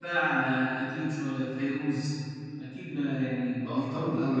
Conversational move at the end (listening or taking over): taking over